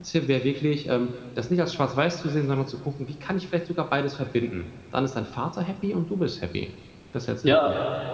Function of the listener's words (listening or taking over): taking over